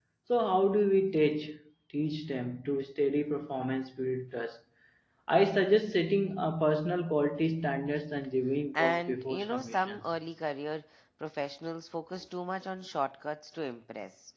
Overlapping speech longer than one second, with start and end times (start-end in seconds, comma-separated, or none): 8.7-10.0